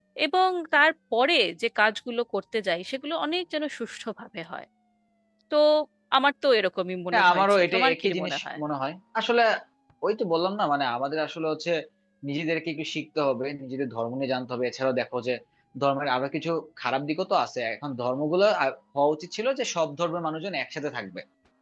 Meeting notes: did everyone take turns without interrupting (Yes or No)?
No